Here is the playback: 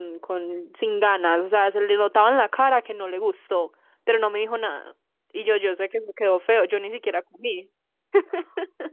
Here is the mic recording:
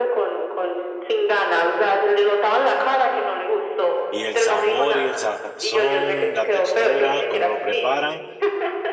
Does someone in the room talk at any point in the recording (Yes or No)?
Yes